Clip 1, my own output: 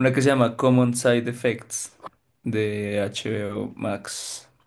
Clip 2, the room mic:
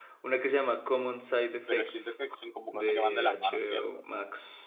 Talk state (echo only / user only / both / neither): both